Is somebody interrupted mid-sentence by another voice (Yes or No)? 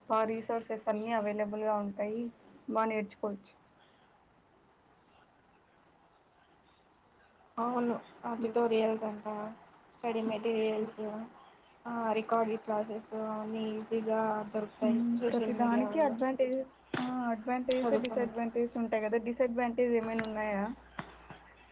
Yes